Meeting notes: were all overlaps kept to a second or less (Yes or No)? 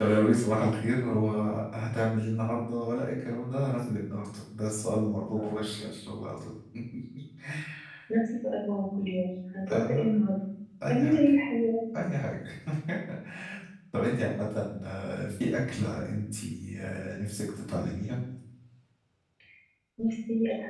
Yes